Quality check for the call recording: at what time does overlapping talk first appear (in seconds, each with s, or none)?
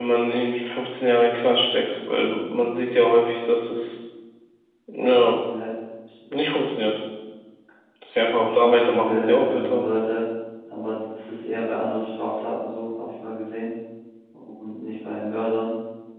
8.2 s